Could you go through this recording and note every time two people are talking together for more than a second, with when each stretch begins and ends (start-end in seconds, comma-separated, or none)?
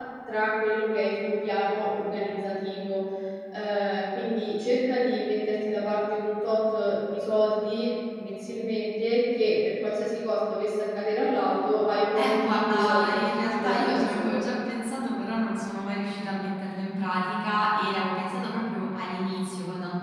12.2-14.3